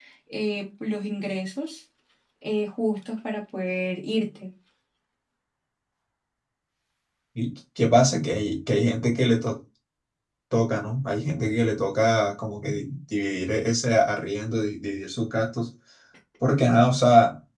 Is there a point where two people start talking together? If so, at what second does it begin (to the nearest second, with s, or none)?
none